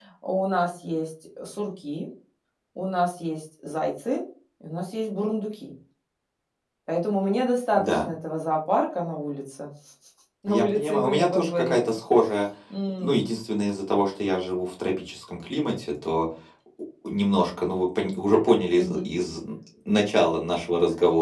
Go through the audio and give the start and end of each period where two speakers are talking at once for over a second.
10.5-11.8

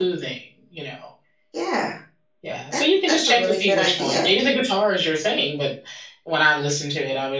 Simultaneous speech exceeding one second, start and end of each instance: 2.7-4.3

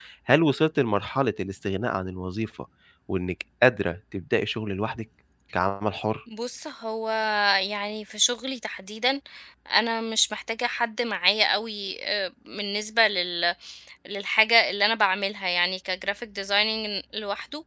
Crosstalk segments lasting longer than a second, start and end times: none

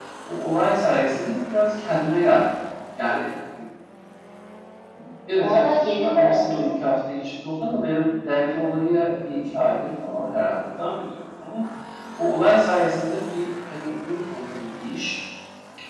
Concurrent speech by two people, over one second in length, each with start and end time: 5.4-6.7

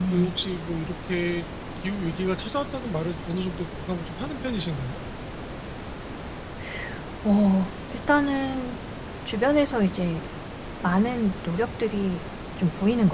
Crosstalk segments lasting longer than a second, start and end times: none

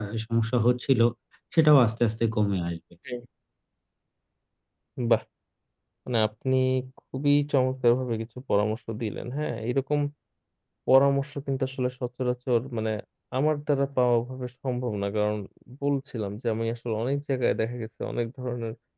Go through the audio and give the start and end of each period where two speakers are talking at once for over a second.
none

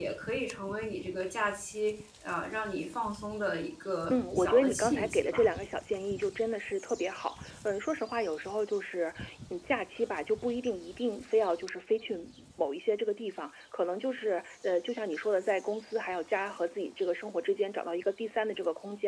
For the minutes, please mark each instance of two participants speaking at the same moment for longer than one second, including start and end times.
4.1-5.5

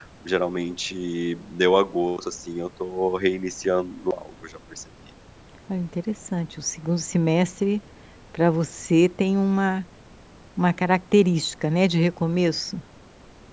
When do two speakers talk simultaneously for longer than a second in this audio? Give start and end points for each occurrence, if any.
none

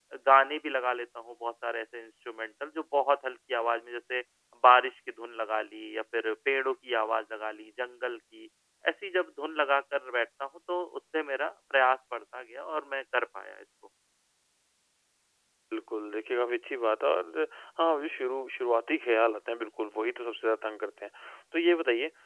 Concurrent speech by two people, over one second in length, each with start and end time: none

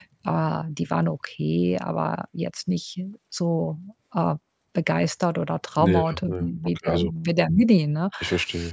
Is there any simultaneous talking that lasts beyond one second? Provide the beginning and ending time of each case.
5.8-7.1

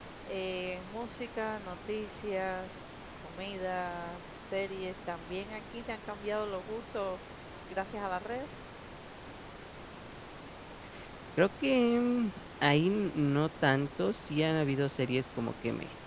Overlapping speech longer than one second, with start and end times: none

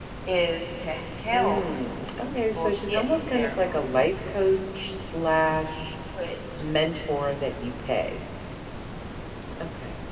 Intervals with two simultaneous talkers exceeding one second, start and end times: 2.3-4.3

